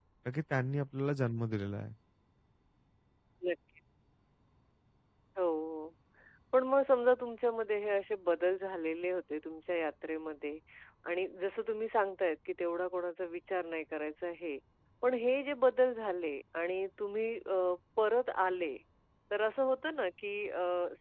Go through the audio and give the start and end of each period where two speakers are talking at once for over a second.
none

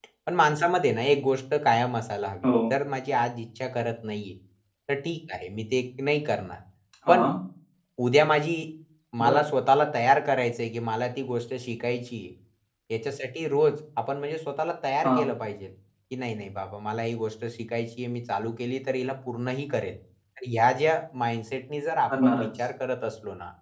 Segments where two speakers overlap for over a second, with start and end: none

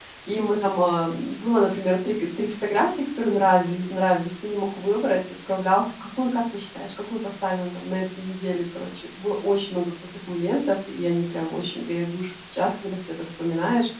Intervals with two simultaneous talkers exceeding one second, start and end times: none

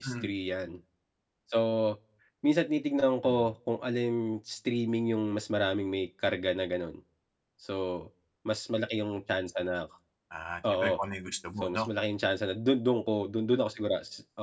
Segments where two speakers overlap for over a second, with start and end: none

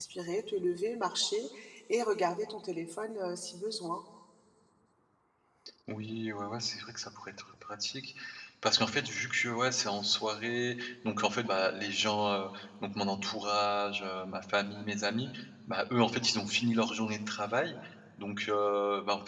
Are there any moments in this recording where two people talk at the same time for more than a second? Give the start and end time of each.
none

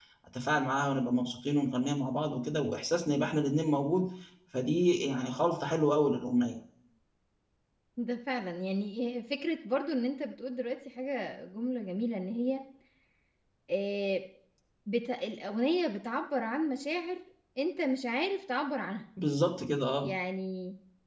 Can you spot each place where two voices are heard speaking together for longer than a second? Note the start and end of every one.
none

